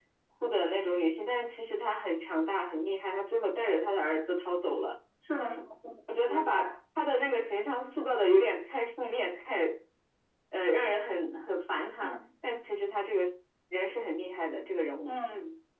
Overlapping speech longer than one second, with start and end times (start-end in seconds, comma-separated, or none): none